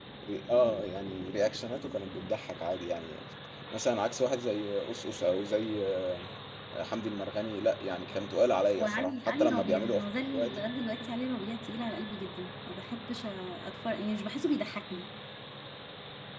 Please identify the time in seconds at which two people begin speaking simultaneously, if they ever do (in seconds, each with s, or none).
8.8 s